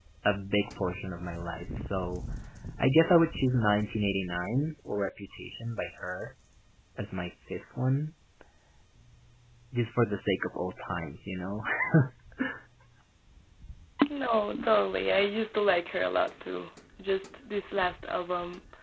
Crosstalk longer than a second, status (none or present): none